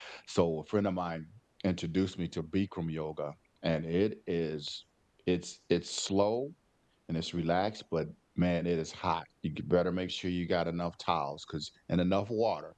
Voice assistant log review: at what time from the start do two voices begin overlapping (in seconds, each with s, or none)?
none